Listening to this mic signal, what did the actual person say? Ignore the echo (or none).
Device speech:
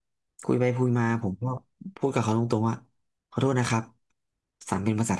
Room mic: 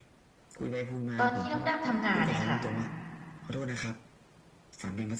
ตอนที่น้องดำทำงานเนี่ยค่ะ